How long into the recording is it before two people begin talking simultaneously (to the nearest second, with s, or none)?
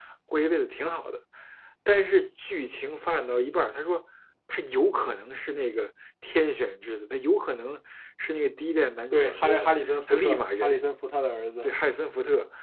9 s